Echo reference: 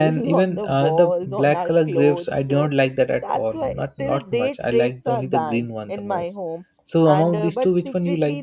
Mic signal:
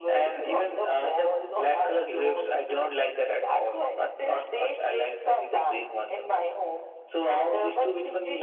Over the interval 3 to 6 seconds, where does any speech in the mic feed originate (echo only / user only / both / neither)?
echo only